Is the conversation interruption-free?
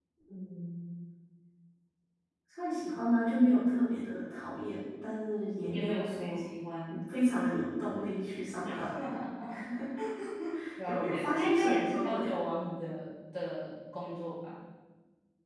No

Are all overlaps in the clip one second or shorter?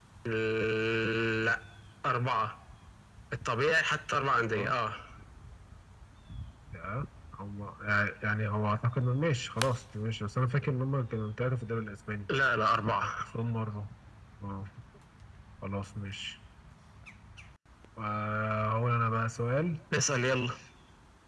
Yes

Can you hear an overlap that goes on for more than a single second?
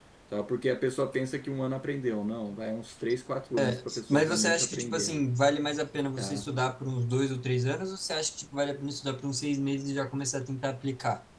Yes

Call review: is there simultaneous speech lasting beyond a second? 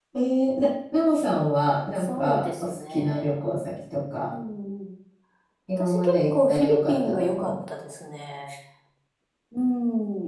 Yes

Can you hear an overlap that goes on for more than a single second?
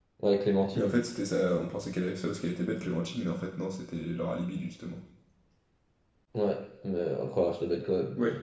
No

